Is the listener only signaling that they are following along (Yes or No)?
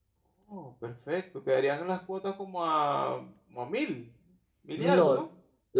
No